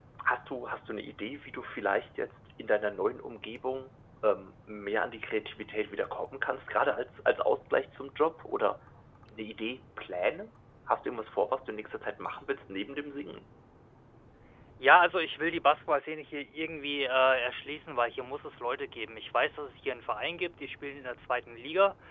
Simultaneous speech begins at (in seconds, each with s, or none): none